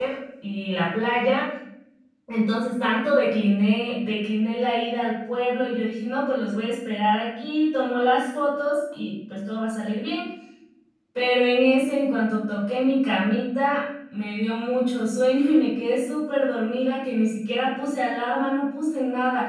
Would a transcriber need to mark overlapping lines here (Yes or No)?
No